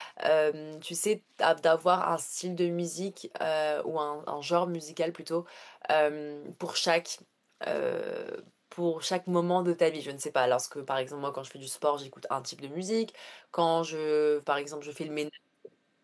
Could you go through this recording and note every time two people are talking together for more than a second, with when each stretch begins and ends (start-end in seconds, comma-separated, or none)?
none